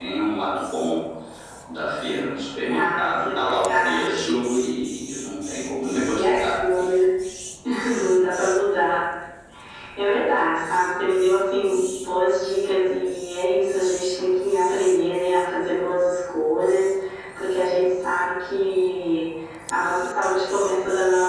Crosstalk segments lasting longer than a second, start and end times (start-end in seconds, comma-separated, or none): 2.7-4.3